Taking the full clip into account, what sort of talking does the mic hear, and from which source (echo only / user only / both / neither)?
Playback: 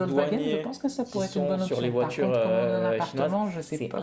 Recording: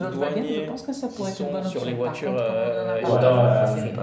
both